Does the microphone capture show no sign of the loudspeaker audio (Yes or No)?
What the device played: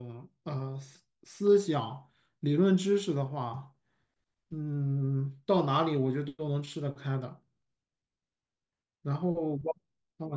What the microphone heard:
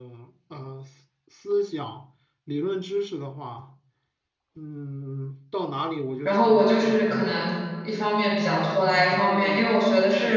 No